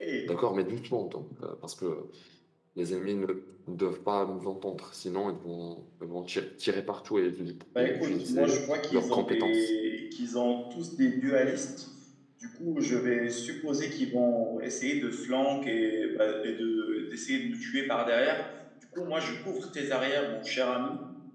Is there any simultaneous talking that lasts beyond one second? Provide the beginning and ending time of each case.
7.8-9.7

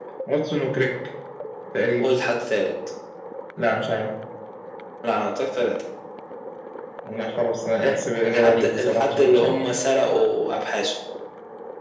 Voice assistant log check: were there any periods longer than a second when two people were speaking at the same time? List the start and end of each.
8.2-9.5

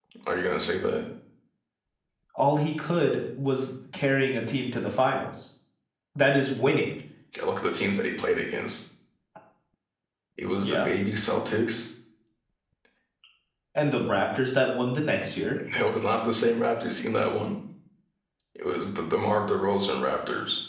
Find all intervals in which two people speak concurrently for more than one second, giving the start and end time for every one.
none

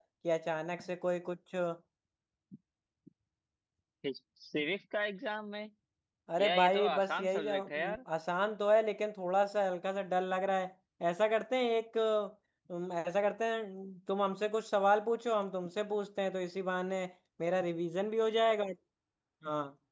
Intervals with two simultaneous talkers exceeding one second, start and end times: 6.4-8.0

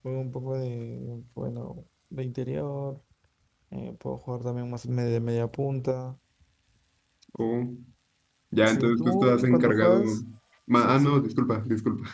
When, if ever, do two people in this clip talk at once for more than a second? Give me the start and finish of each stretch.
8.7-10.0

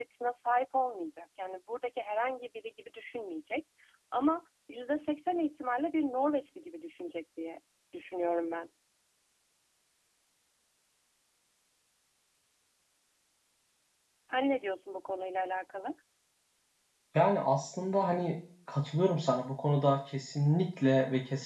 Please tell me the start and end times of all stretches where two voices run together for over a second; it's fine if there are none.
none

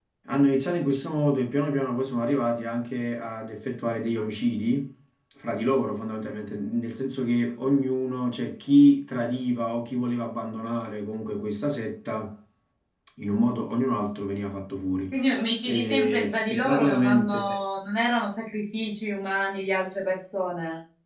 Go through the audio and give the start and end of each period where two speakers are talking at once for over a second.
15.7-17.4

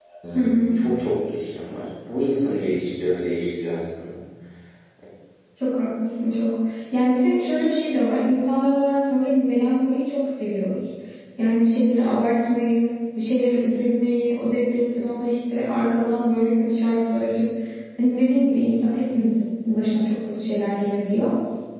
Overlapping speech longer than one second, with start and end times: none

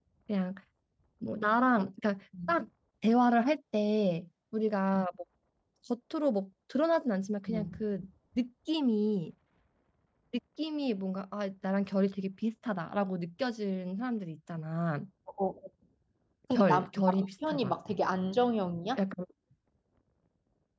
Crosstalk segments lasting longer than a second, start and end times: 16.5-17.7

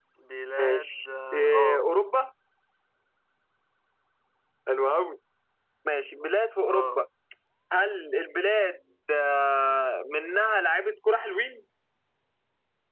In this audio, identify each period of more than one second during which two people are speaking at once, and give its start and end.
0.6-1.9

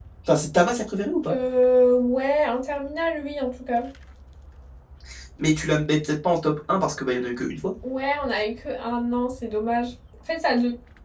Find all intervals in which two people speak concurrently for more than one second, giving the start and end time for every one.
none

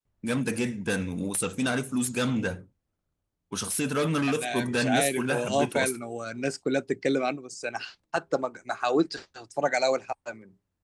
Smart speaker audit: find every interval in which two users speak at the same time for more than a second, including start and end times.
4.3-6.0

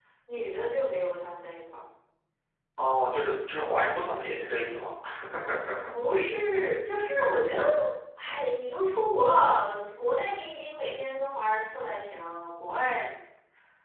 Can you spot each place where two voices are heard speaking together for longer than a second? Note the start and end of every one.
none

